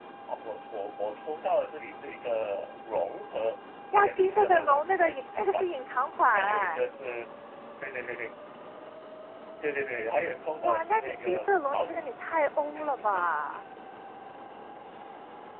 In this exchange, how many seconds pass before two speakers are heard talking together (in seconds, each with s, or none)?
3.9 s